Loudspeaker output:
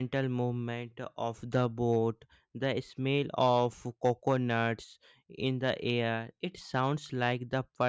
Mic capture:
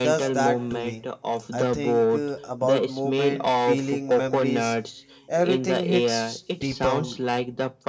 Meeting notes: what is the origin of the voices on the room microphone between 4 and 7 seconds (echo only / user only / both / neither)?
both